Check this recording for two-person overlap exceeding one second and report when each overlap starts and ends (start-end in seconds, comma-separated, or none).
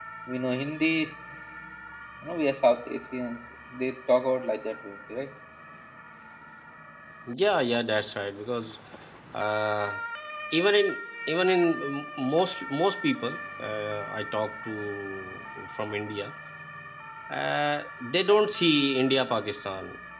none